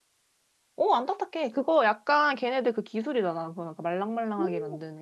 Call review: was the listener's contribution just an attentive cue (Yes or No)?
No